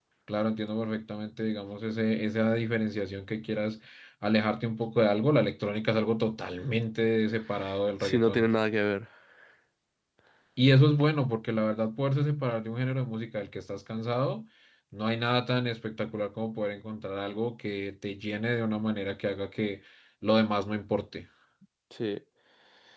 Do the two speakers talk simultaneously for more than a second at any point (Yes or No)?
No